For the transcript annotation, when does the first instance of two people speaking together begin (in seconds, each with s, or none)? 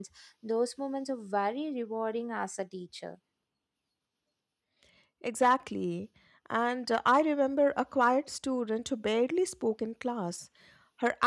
none